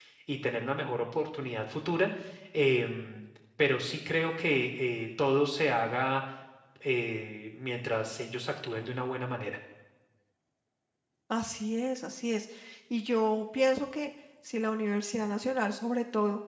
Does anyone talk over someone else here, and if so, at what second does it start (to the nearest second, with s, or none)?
none